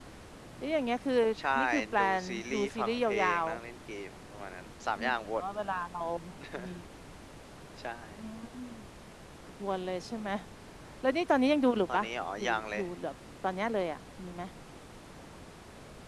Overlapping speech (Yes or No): Yes